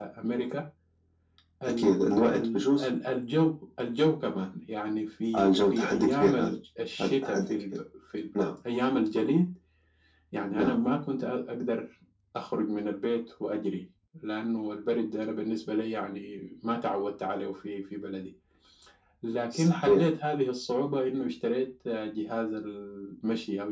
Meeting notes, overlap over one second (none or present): present